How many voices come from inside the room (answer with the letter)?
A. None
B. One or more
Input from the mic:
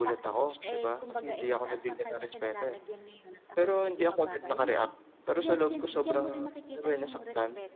B